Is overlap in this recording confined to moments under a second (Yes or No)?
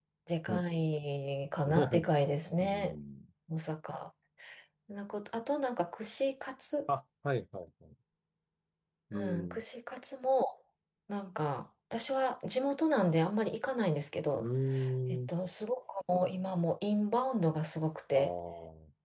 Yes